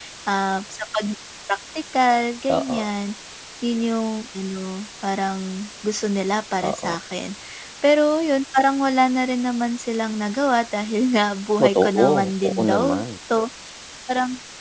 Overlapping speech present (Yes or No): Yes